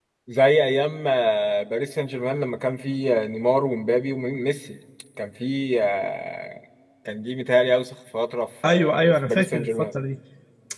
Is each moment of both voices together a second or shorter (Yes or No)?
No